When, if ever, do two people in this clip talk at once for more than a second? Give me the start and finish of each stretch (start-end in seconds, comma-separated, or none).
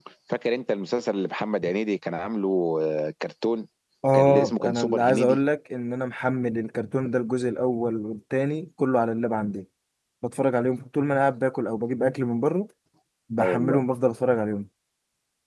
4.1-5.4